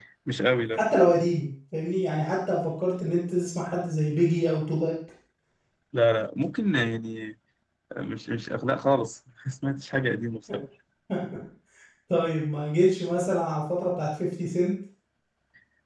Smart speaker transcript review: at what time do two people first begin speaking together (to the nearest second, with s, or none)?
none